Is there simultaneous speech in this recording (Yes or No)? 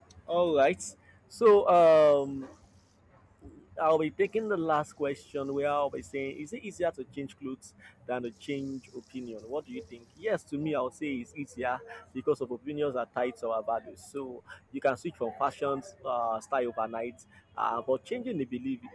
No